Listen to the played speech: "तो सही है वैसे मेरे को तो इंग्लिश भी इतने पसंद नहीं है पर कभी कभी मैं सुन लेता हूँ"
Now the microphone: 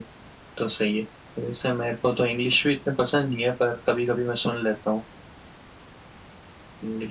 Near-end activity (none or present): none